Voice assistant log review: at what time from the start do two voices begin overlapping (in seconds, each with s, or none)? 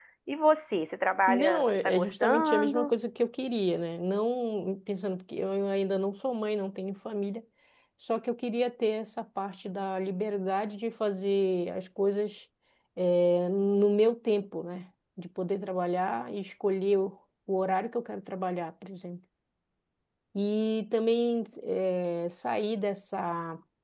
1.3 s